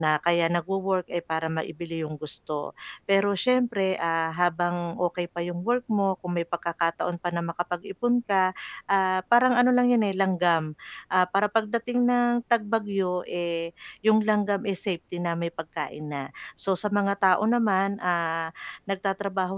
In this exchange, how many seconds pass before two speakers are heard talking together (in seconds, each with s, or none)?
none